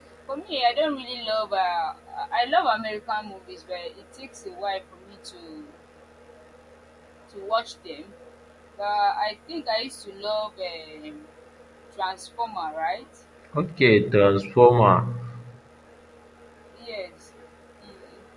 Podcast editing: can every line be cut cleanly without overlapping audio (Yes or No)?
Yes